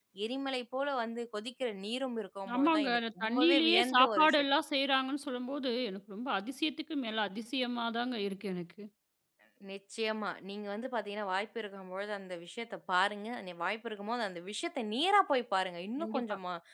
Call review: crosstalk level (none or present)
present